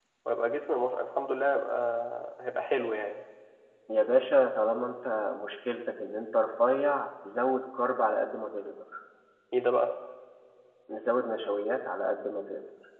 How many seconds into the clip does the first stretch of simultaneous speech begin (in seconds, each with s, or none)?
none